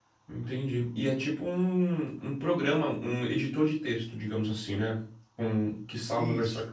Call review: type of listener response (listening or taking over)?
listening